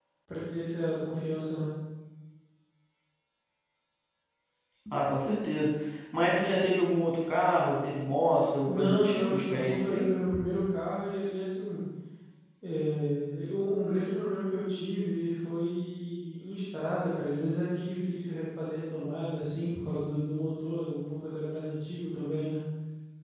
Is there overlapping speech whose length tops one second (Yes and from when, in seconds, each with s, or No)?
Yes, from 8.6 s